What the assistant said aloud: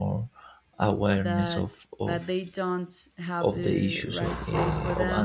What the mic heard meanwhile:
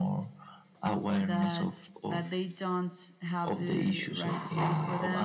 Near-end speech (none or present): none